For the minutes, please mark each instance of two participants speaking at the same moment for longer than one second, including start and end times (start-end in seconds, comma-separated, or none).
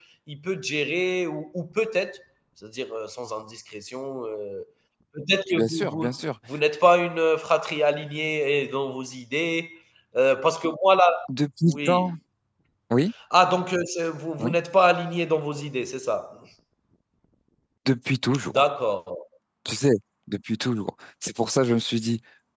none